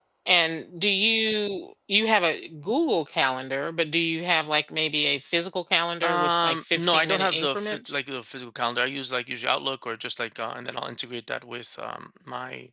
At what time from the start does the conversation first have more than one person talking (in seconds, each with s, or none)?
6.0 s